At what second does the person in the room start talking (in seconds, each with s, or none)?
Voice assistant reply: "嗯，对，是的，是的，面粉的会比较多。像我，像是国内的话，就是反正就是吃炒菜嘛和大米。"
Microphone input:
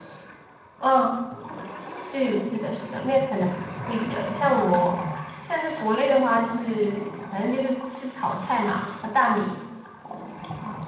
none